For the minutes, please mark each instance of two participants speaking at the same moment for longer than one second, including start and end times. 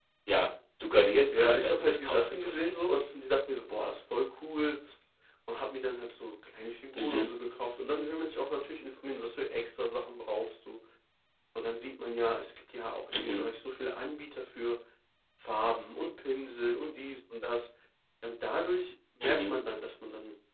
1.3-2.6

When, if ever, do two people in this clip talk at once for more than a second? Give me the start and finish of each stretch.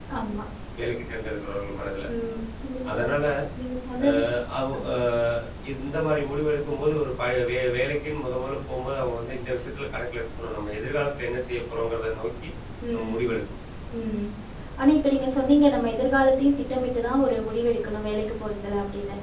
none

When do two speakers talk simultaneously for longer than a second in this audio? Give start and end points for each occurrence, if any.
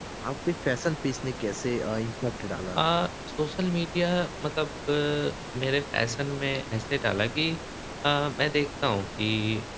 none

